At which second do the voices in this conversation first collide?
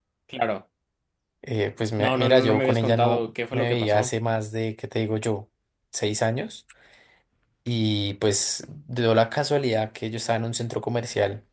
2.0 s

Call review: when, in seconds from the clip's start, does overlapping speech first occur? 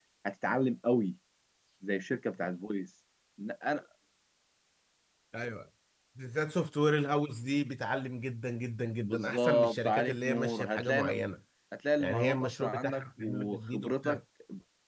9.0 s

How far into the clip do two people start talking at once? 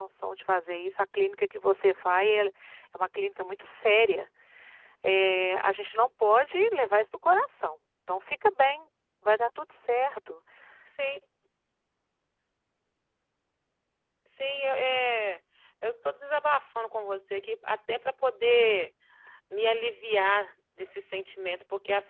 none

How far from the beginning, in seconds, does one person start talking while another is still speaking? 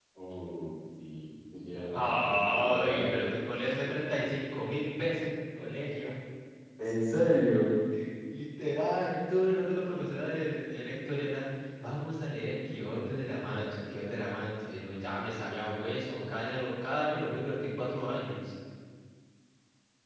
1.9 s

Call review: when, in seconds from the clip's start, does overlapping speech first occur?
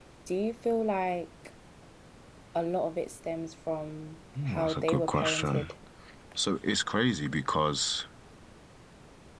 4.3 s

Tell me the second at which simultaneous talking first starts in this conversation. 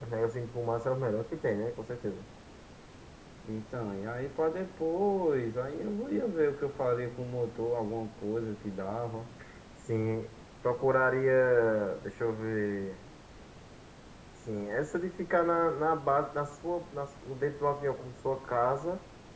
none

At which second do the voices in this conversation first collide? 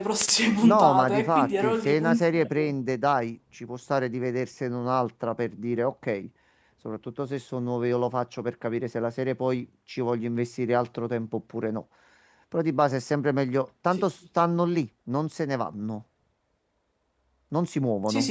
0.6 s

